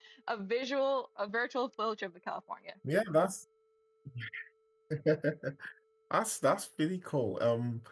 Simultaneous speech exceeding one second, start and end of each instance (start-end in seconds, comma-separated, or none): none